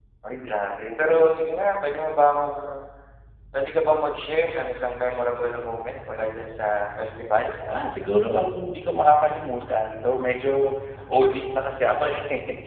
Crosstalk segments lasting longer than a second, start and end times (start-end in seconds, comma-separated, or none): none